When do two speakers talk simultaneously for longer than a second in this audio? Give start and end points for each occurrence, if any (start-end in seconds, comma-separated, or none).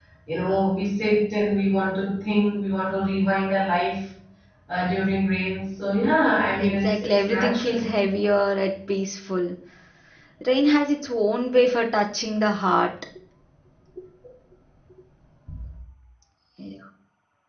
6.6-7.9